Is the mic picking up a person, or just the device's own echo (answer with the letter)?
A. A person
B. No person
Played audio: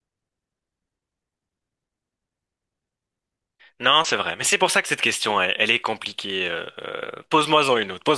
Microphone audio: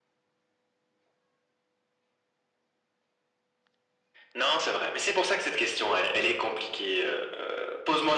B